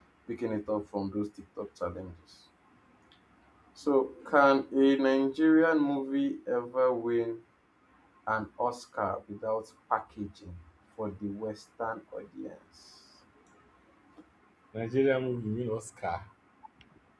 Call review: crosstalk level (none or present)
none